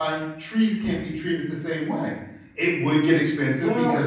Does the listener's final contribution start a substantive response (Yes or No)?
No